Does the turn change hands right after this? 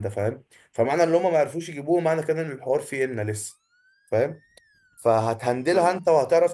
No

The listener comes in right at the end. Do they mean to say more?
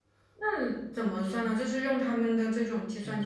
Yes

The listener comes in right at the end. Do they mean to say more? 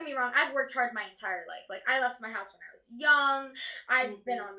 No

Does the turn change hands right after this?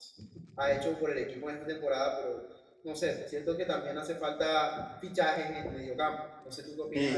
Yes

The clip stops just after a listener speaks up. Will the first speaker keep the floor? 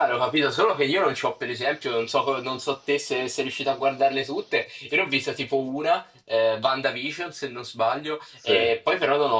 Yes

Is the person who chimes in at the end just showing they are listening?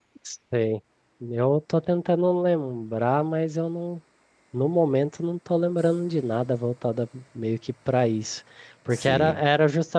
Yes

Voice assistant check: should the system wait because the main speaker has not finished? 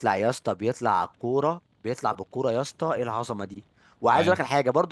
Yes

